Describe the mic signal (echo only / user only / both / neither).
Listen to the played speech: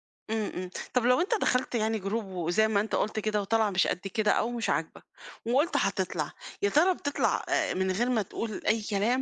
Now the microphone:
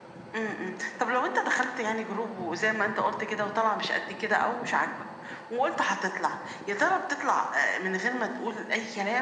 echo only